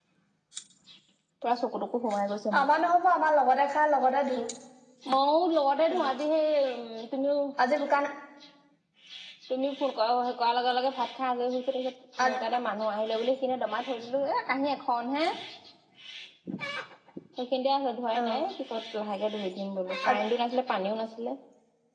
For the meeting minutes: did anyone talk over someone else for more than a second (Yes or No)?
No